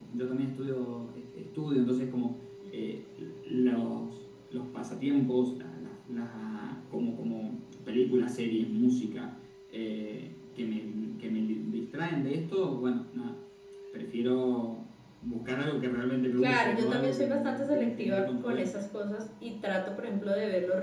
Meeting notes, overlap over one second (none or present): present